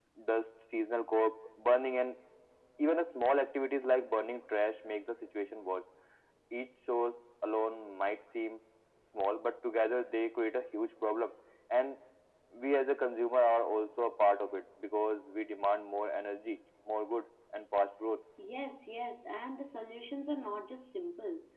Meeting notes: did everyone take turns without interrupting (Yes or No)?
Yes